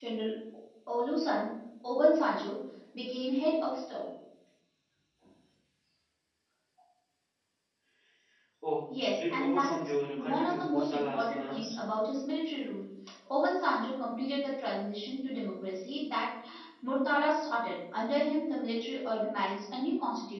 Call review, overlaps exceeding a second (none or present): present